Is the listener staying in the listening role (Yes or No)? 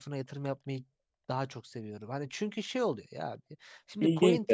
Yes